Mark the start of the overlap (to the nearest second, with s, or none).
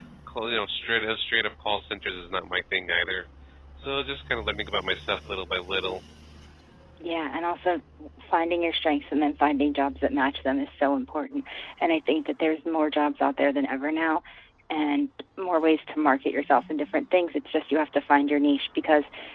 none